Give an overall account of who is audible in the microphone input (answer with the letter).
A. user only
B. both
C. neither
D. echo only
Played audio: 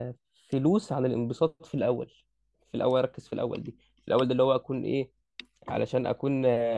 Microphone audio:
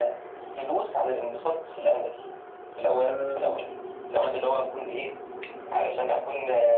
B